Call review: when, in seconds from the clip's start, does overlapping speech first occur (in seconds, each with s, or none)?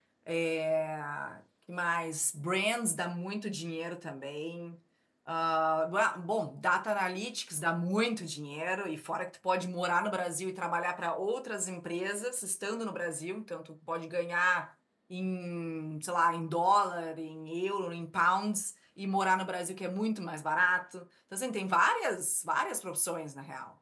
none